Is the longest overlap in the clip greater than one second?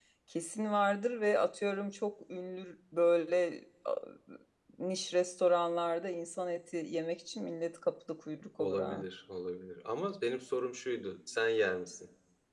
No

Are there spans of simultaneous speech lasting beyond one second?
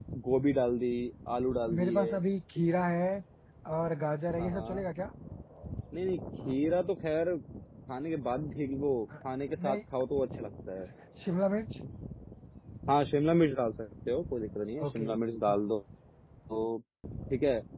No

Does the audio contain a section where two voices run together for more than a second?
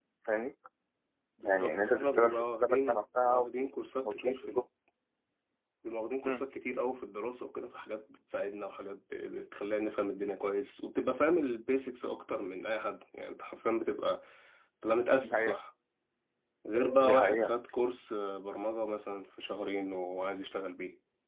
Yes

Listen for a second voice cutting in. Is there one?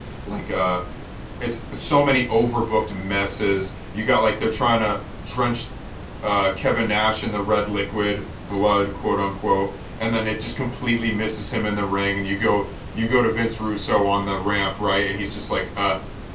No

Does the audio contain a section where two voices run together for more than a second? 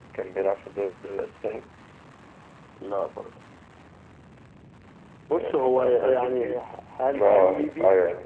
Yes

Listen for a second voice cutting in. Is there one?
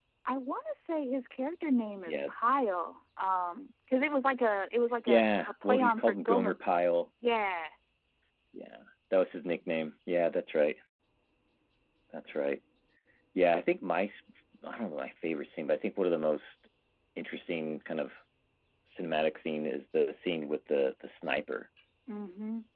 Yes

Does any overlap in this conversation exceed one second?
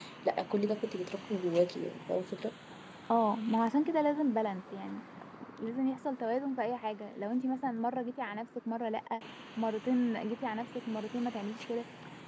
No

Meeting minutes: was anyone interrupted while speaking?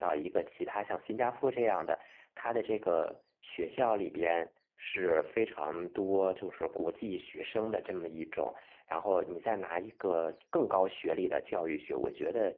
No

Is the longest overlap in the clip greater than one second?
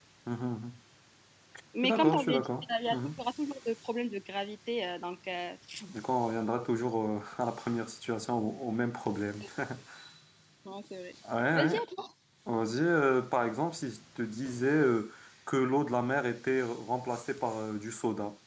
Yes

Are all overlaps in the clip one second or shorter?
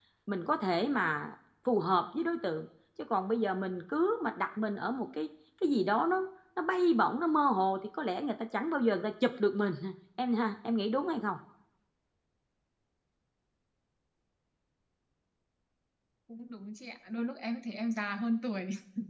Yes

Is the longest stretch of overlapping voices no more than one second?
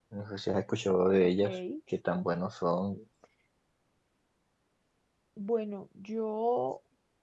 Yes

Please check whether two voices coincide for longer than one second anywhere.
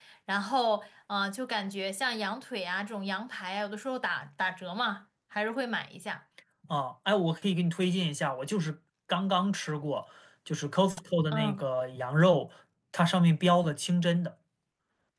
No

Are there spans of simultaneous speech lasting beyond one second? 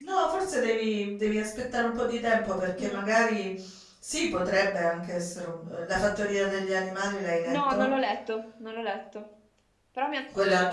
No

